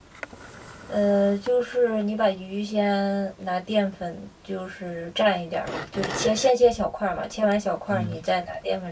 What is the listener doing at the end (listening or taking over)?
listening